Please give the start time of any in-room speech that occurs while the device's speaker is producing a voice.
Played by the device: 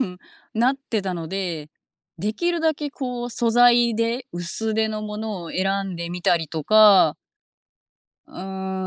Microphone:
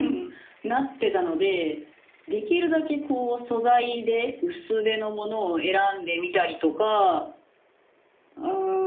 none

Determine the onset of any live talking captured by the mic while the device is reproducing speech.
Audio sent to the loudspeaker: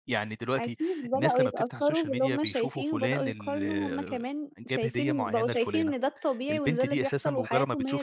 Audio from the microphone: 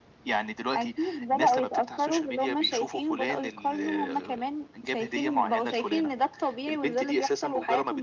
none

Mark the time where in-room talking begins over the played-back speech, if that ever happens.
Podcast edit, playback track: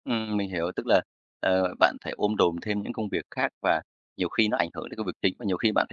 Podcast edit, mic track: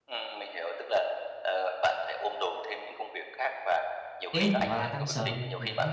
4.3 s

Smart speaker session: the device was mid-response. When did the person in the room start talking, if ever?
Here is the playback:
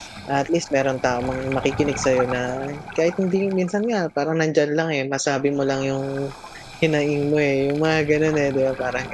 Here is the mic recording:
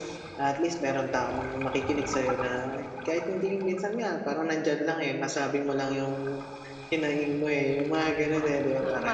8.0 s

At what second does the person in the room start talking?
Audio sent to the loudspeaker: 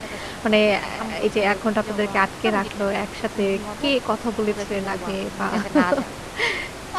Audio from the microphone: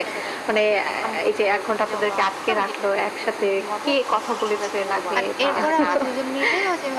5.2 s

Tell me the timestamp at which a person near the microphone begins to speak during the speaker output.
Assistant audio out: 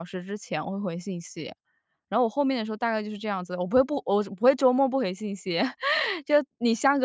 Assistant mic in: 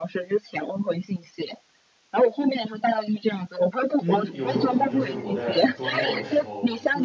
4.0 s

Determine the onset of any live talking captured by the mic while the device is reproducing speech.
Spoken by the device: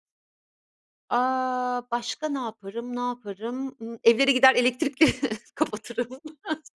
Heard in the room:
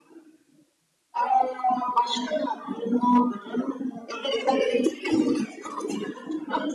none

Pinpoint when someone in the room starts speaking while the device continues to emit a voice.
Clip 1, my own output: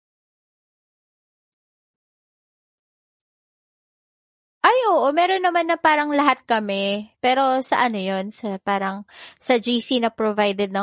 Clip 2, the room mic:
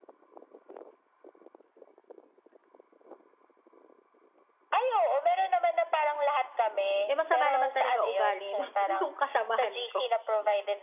7.1 s

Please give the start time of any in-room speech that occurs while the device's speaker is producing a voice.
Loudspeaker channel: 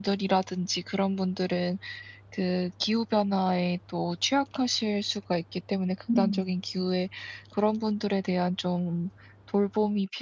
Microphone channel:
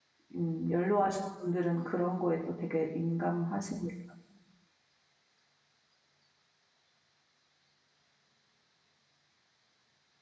0.3 s

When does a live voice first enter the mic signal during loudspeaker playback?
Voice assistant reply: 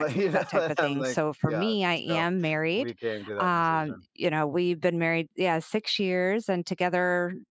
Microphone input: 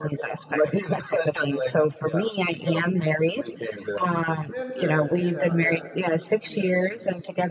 4.5 s

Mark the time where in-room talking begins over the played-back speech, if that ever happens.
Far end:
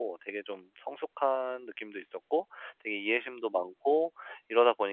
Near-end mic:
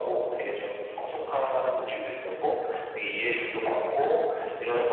none

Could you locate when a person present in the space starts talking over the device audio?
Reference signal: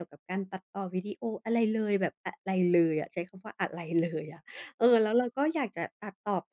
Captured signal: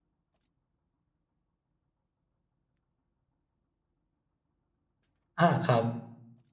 5.4 s

